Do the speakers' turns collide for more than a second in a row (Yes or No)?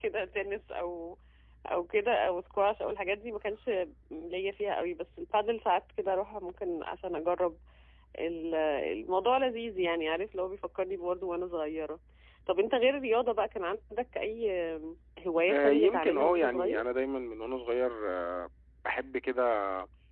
Yes